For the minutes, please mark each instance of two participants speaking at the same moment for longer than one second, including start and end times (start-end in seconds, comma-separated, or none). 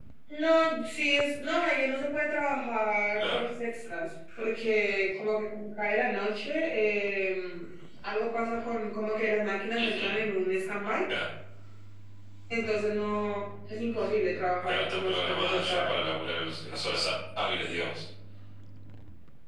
14.7-15.9